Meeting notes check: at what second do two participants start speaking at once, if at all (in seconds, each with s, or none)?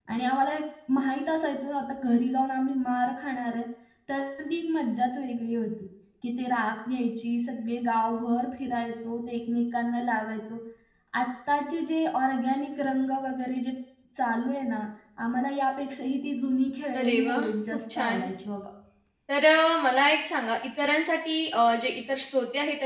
16.9 s